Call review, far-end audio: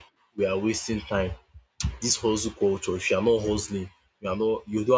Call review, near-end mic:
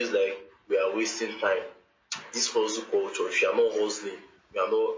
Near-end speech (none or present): none